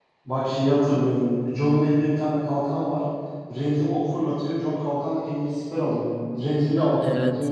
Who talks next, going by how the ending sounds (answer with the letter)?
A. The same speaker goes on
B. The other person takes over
A